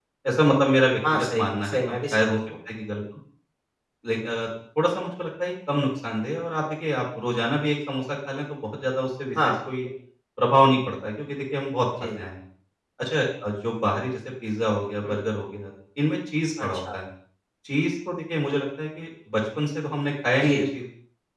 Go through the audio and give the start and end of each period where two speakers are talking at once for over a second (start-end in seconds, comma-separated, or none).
1.1-2.4